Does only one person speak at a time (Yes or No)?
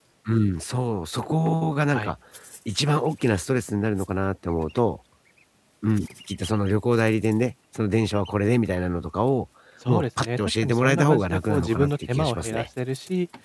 No